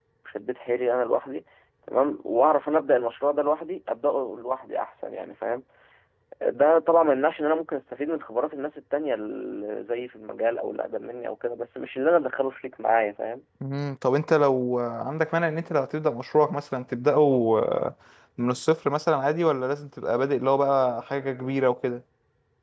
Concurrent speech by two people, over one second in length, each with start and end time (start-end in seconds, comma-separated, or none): none